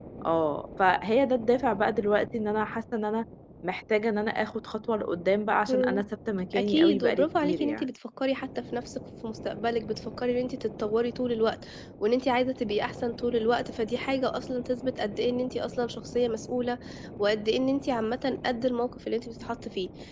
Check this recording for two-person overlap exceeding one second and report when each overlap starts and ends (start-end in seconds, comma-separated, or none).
6.5-7.9